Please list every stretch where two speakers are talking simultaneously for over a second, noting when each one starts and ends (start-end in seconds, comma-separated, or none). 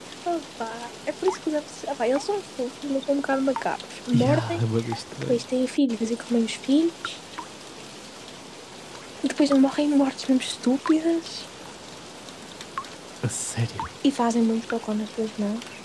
none